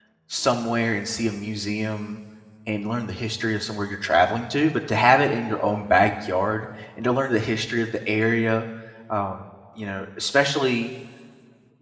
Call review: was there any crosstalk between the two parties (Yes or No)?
No